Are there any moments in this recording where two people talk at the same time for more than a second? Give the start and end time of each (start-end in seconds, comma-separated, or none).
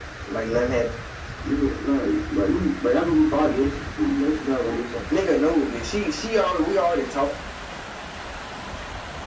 none